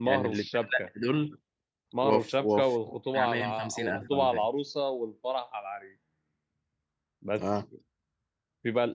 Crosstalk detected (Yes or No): Yes